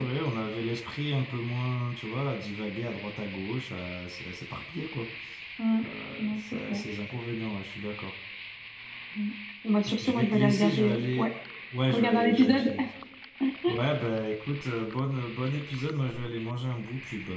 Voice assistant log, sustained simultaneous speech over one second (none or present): present